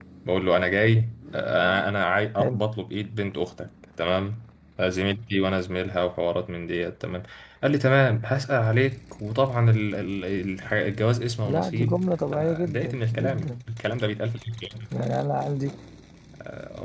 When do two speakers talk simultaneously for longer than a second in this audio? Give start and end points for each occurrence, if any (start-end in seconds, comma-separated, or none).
11.4-13.6